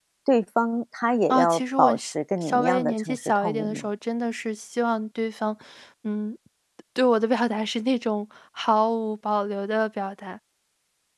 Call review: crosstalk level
present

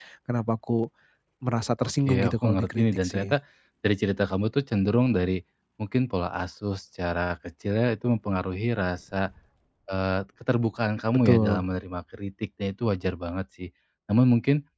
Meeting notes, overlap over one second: present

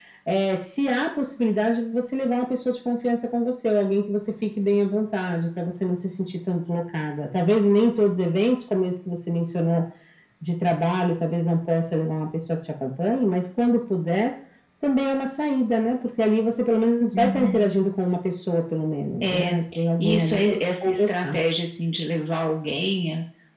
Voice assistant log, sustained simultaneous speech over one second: present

